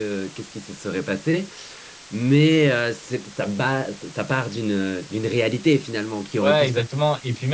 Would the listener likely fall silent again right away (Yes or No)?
No